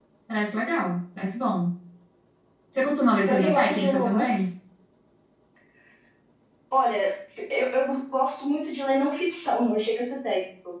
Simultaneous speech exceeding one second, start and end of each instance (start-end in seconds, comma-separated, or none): 3.2-4.5